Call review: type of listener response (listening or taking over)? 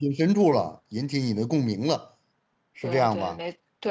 taking over